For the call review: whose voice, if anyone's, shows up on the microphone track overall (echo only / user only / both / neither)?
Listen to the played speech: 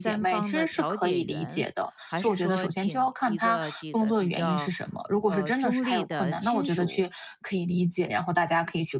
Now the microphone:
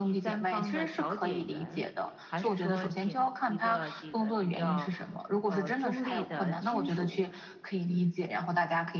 echo only